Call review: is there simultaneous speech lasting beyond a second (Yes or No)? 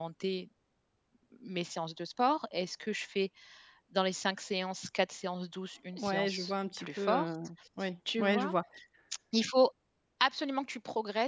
Yes